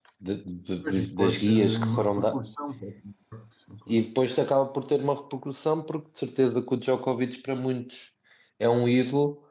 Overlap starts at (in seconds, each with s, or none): 0.8 s